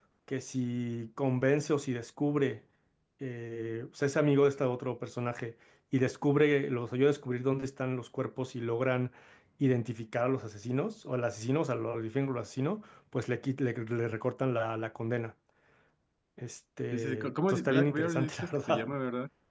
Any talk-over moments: Yes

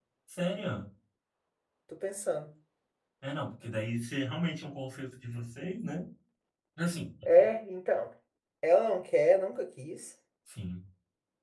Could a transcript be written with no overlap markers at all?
Yes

